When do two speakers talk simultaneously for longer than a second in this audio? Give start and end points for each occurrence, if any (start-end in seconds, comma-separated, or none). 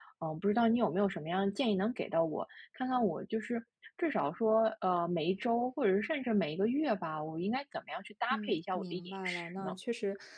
8.3-9.7